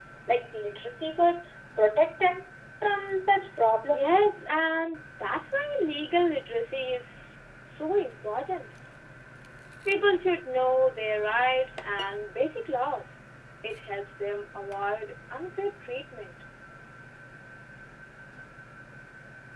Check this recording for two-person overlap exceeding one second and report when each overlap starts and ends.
none

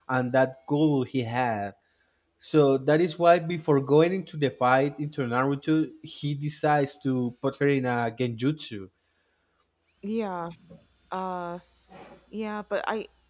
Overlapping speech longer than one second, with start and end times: none

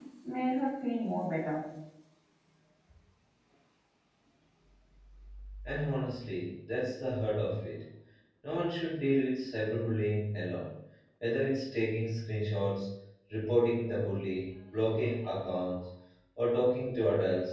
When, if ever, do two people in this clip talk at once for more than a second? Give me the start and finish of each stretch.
none

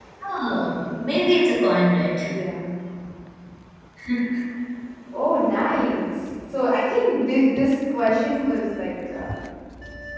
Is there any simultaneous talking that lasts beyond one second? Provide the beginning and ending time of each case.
none

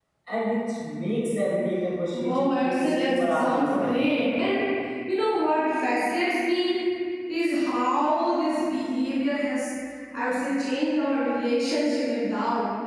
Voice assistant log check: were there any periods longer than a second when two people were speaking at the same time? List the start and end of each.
2.1-4.0

